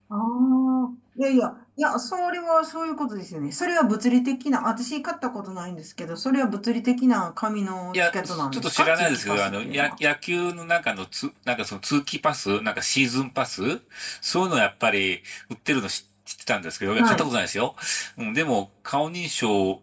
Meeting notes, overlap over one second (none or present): present